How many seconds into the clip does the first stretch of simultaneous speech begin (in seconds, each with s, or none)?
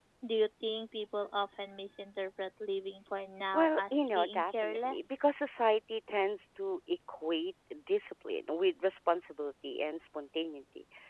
3.5 s